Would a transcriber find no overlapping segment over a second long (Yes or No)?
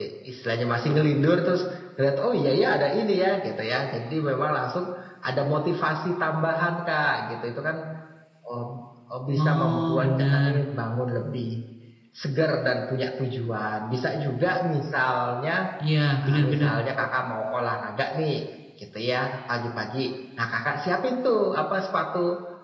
No